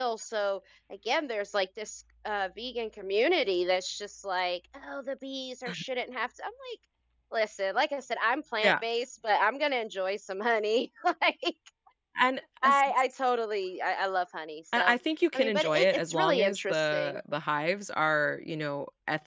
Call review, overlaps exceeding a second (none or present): present